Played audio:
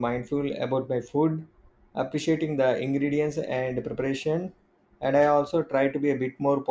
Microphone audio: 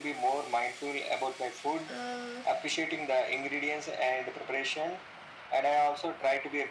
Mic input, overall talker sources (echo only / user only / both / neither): both